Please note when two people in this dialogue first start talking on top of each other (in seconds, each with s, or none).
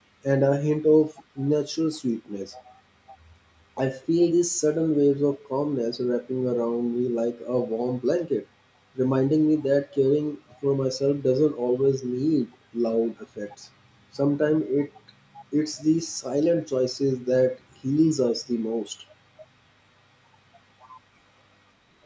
none